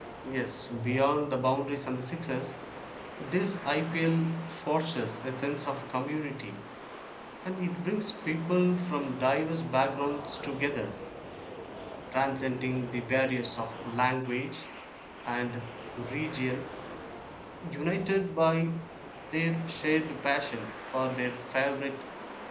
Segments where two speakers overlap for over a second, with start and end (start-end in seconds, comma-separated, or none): none